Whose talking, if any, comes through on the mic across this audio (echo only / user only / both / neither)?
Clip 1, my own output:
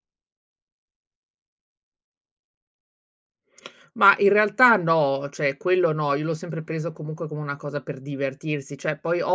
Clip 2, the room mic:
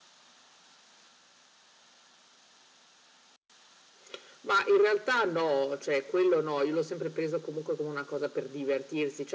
echo only